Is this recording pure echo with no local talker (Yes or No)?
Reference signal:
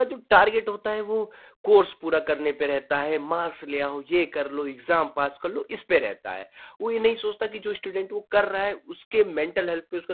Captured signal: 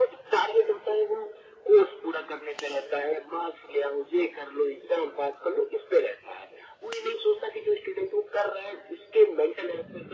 Yes